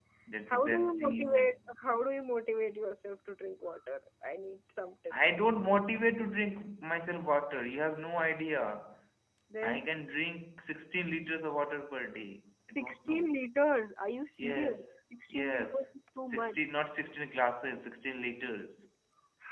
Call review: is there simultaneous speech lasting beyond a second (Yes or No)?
Yes